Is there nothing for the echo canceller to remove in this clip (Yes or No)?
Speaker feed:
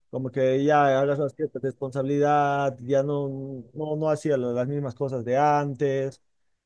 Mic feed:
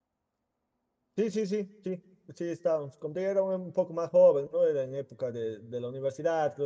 Yes